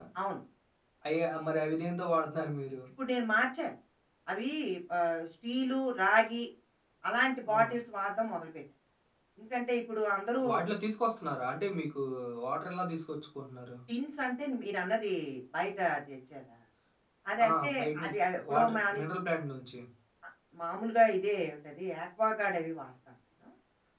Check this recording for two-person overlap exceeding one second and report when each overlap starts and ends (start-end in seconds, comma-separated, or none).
17.5-19.0